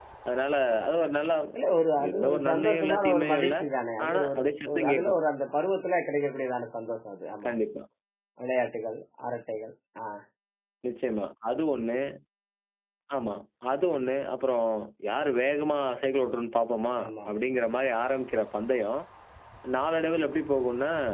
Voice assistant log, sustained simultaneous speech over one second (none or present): present